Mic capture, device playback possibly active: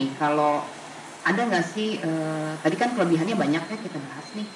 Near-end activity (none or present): none